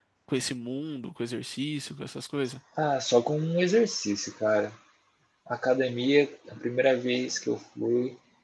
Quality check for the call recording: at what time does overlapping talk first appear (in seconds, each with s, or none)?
none